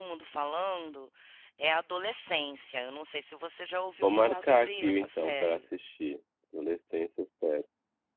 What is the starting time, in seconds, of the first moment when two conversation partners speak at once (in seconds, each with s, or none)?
4.0 s